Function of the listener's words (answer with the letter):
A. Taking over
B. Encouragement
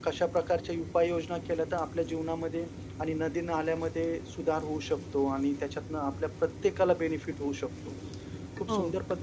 B